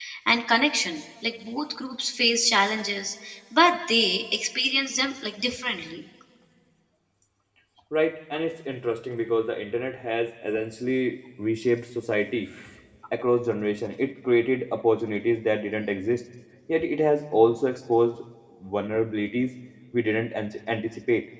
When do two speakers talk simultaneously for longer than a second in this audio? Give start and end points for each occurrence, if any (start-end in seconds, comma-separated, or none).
none